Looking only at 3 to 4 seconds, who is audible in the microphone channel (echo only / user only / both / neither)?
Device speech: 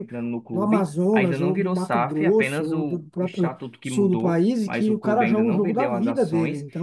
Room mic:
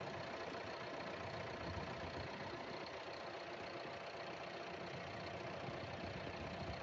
neither